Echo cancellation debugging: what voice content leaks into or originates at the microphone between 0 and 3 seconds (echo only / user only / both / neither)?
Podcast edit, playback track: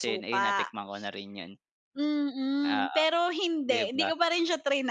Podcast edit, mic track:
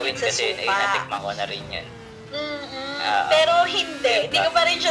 echo only